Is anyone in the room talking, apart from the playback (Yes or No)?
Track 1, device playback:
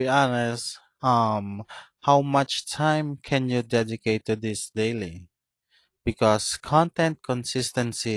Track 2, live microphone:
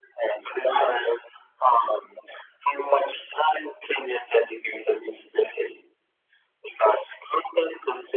No